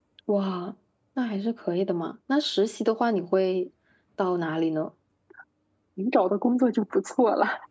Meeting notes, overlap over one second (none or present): none